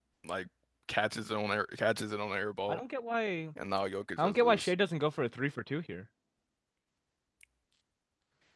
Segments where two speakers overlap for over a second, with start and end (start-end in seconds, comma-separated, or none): none